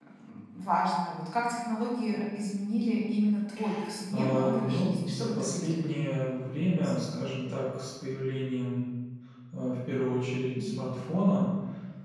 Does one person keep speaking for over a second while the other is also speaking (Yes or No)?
Yes